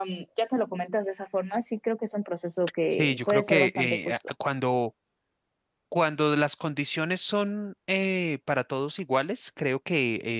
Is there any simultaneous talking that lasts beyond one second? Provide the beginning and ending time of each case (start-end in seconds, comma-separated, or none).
2.9-4.1